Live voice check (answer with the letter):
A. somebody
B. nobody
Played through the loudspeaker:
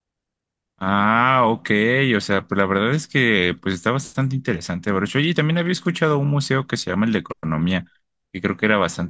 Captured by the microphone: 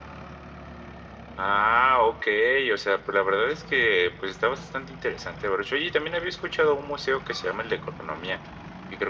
B